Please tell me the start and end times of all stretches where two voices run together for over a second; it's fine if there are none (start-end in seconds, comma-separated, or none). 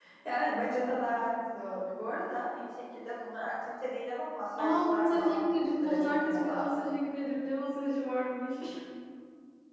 4.6-6.7